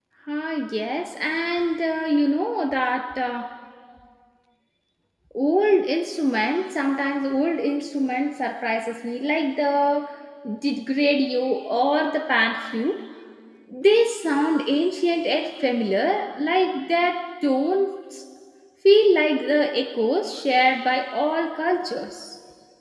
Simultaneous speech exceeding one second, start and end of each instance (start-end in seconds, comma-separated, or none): none